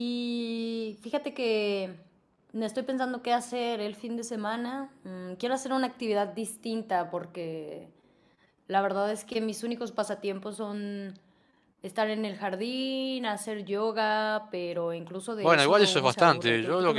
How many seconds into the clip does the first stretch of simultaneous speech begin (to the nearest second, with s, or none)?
15 s